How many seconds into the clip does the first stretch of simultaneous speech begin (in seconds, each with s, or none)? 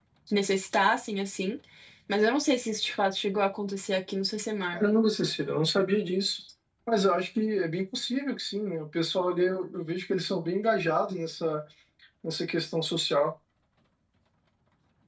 none